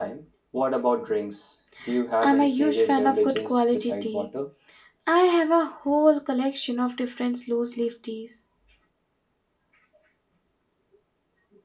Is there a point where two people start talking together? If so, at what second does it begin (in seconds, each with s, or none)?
2.2 s